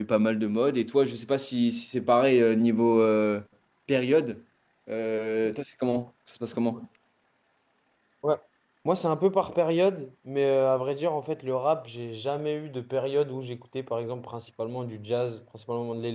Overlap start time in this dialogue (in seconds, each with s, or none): none